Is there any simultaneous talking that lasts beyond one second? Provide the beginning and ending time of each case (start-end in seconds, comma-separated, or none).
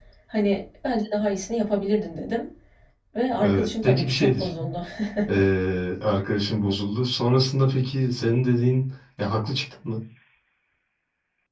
3.4-4.7